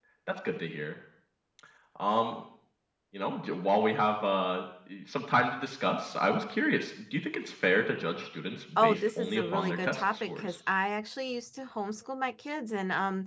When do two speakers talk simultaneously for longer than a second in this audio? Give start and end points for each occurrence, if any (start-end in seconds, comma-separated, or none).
8.8-10.4